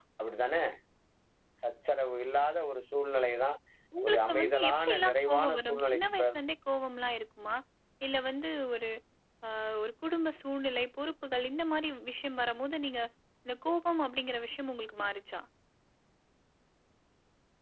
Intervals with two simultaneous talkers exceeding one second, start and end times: 4.0-6.3

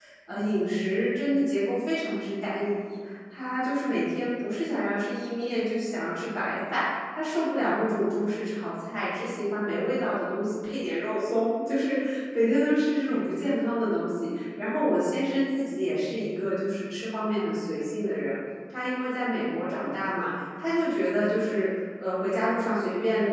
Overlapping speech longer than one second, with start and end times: none

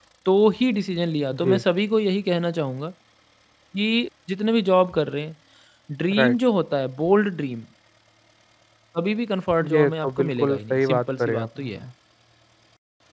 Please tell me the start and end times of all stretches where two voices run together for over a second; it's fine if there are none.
9.7-11.8

